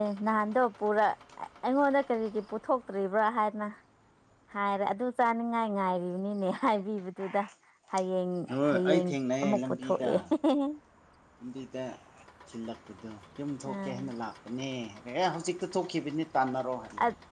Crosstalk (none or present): present